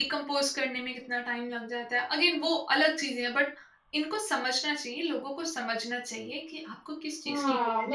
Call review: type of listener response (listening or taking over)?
taking over